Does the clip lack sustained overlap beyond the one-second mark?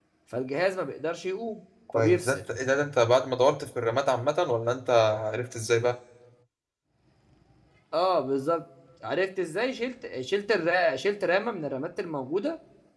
Yes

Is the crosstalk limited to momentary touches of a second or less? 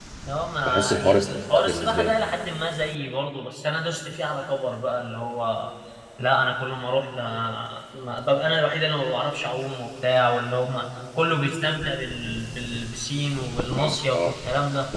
No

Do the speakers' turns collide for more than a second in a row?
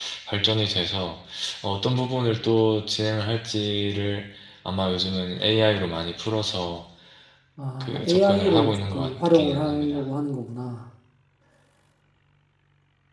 Yes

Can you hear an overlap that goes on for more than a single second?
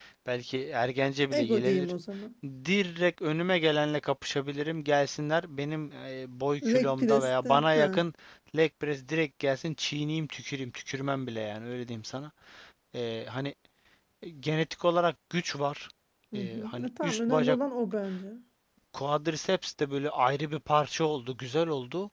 Yes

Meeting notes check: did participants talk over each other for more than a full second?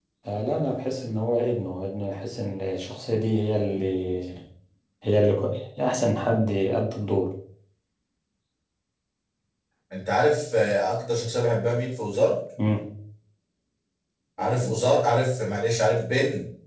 No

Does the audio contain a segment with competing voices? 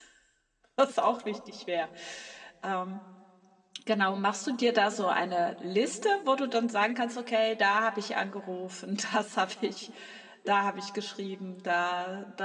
No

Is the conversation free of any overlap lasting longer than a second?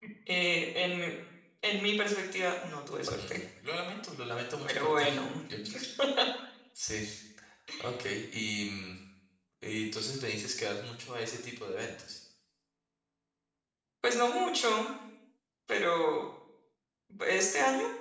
Yes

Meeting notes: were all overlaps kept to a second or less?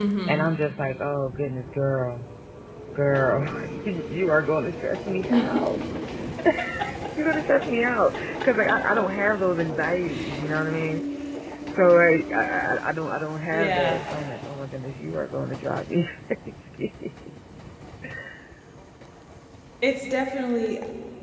Yes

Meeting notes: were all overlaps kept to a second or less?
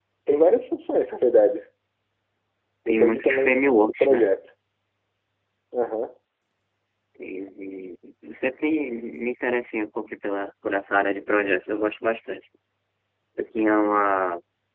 No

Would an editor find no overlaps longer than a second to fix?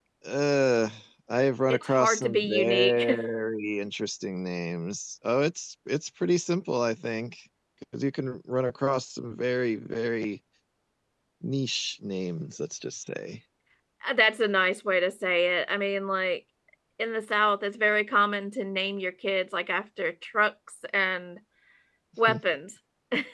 No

